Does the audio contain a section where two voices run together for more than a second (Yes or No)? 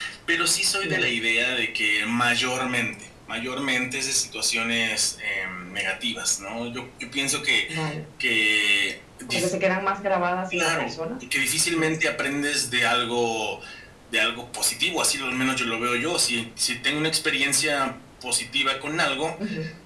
No